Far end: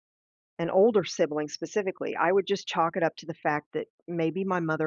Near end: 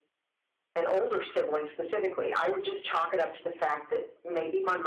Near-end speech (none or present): none